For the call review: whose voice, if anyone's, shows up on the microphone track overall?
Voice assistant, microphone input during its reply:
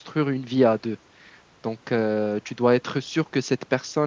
user only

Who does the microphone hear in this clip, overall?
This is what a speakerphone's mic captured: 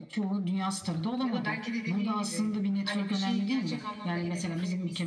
both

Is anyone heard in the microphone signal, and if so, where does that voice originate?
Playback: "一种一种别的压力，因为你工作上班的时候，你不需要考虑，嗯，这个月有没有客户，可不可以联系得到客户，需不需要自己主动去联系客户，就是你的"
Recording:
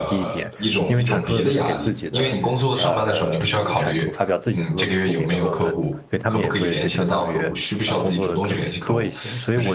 both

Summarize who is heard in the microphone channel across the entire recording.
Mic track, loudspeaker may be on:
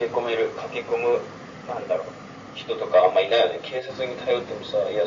echo only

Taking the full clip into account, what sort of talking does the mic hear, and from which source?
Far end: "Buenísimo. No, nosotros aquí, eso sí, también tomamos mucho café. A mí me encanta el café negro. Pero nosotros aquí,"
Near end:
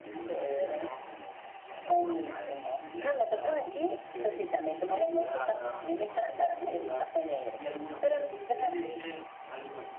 both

